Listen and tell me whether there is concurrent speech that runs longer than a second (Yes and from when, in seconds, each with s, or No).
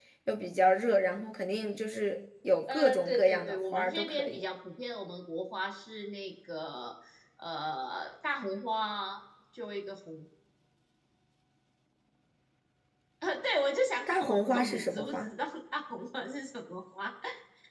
Yes, from 2.7 s